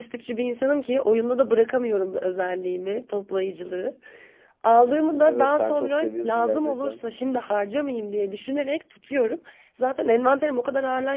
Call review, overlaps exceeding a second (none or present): present